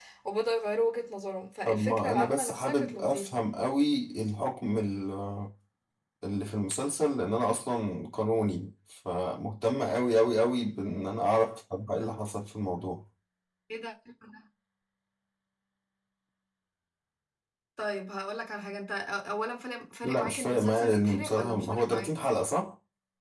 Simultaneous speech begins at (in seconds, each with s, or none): 1.6 s